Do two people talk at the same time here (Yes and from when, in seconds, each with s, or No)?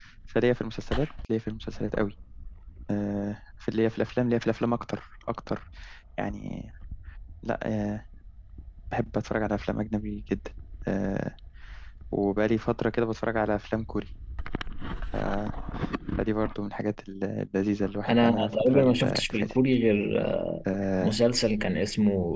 Yes, from 18.1 s